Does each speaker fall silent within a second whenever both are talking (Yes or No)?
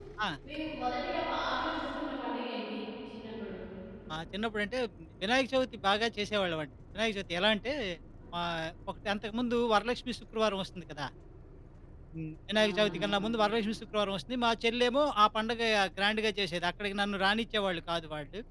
Yes